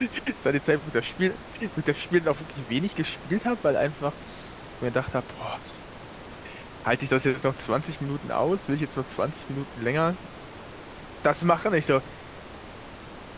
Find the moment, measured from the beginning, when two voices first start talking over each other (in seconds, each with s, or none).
none